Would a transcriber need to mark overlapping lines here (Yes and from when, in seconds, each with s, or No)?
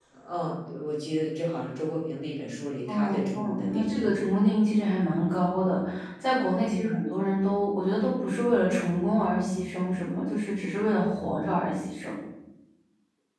Yes, from 2.9 s